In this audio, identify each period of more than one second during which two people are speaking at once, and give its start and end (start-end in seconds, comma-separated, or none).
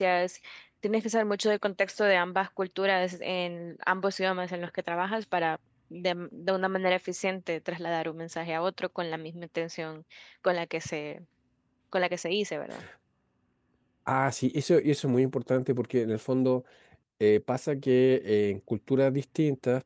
none